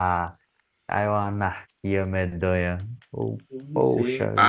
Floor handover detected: Yes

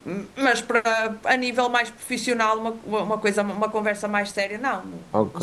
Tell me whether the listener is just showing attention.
No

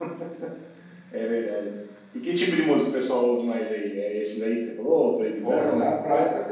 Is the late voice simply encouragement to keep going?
No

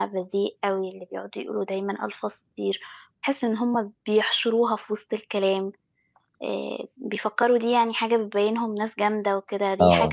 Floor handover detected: Yes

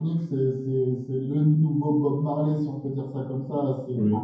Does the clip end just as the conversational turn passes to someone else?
No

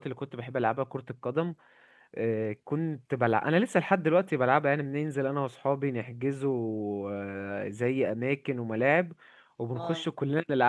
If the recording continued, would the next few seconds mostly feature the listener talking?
No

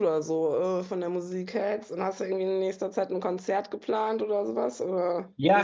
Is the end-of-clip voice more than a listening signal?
Yes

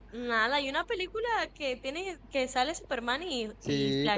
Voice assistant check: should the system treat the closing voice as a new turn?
Yes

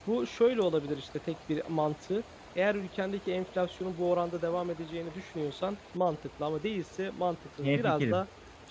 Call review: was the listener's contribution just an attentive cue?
Yes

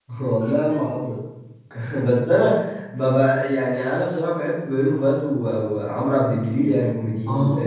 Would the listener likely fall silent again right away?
No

